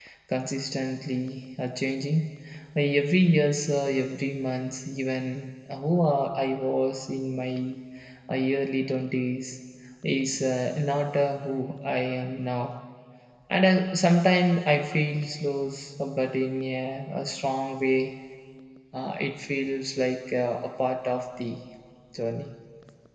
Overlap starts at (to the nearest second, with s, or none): none